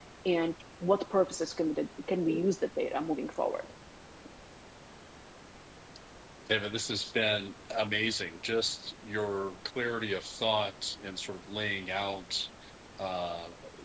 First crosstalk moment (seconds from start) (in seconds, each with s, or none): none